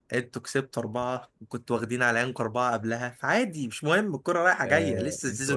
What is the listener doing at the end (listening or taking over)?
taking over